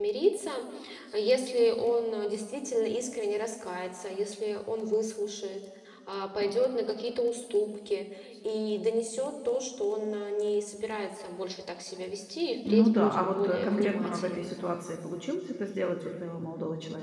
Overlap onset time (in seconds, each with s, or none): 12.6 s